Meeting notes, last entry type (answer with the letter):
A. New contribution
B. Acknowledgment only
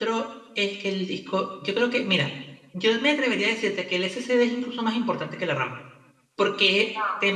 B